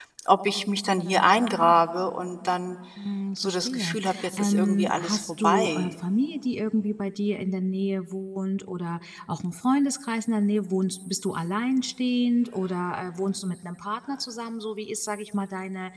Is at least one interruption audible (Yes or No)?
Yes